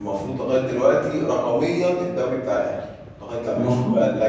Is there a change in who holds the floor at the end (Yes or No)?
Yes